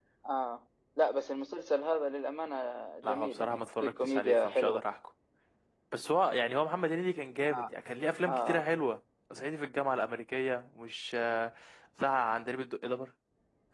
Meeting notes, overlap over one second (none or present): present